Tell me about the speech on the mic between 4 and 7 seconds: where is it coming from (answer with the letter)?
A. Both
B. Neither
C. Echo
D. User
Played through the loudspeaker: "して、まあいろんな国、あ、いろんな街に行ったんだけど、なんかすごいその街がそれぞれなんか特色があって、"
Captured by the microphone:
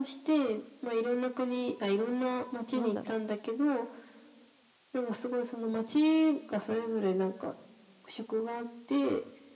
C